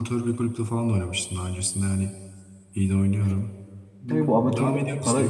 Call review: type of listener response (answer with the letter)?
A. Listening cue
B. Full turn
B